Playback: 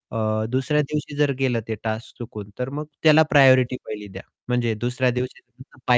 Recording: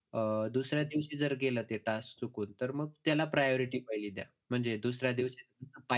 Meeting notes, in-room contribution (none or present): none